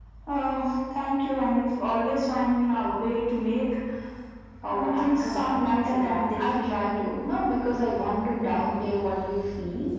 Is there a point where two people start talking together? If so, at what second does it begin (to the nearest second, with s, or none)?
5 s